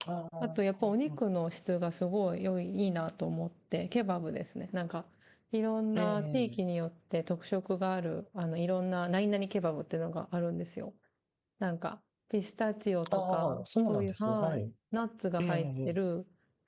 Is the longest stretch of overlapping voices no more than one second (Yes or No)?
No